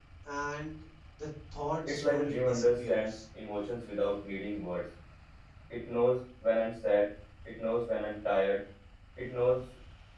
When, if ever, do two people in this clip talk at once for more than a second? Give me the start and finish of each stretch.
1.9-3.2

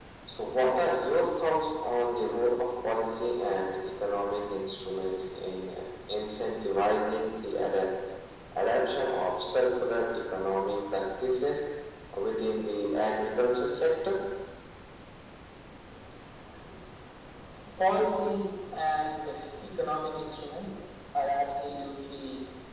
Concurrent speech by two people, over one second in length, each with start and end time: none

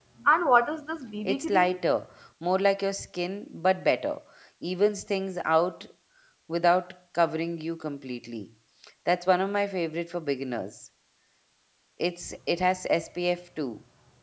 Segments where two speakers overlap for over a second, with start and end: none

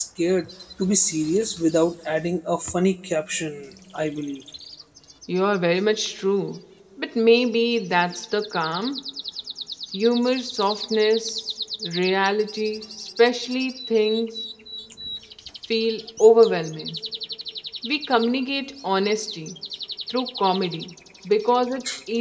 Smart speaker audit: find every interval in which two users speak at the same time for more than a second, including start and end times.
none

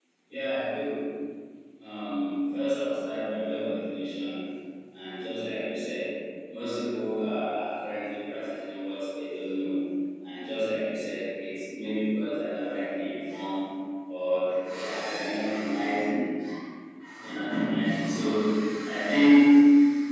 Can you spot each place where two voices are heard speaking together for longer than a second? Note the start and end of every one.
none

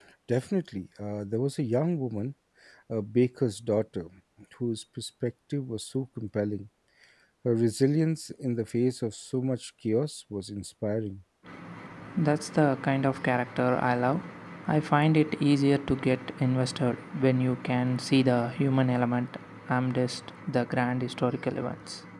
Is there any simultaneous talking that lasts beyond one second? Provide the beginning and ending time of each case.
none

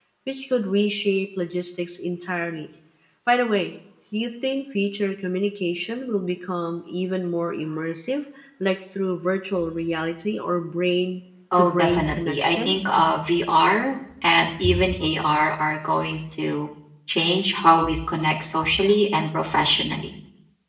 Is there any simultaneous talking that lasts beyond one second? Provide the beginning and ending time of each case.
11.5-12.9

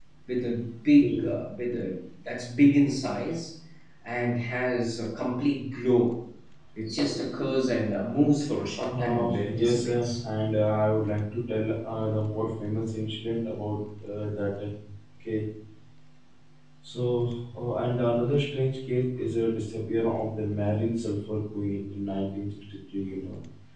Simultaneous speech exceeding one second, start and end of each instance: 8.9-10.2

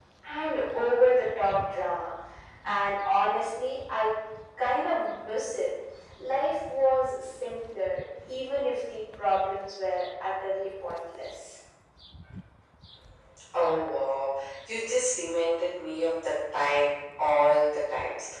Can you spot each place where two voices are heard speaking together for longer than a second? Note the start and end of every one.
none

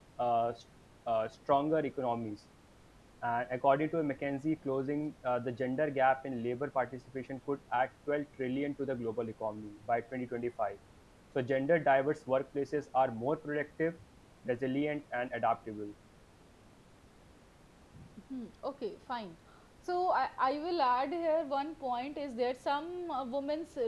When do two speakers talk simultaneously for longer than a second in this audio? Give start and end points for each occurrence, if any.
none

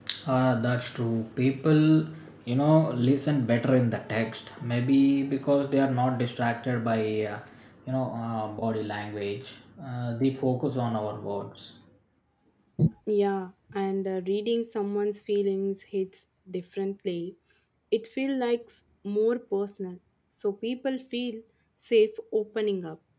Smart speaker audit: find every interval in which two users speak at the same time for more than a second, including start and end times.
none

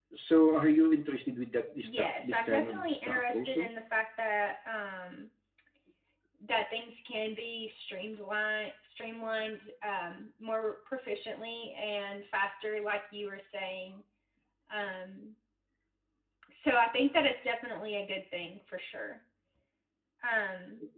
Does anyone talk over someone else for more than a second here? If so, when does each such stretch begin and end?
1.8-3.7

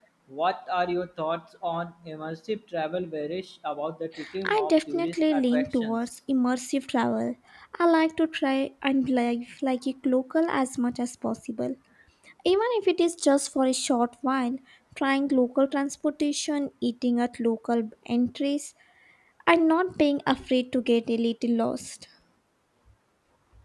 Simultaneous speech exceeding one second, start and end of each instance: 4.5-6.0

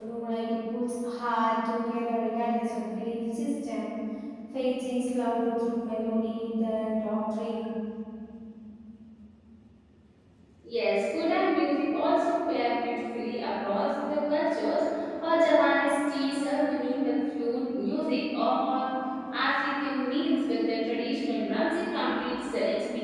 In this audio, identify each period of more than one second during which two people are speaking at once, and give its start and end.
none

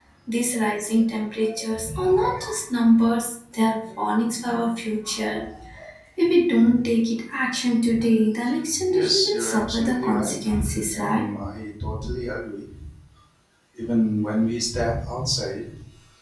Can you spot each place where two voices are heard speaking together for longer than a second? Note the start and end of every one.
8.9-10.5

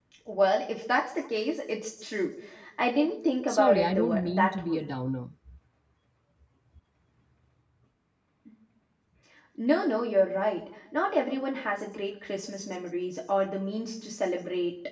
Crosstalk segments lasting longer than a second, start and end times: 3.5-4.9

